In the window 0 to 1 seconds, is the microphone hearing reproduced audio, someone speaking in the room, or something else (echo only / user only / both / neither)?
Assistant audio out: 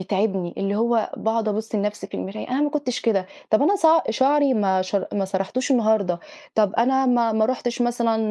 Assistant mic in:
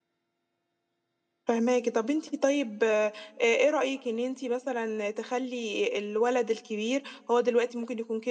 neither